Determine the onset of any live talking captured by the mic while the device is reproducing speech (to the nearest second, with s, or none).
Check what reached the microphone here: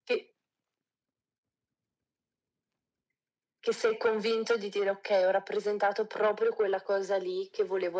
none